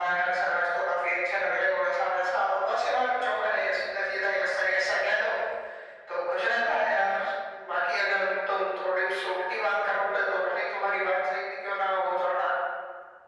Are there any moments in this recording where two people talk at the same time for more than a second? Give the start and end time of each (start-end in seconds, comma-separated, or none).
none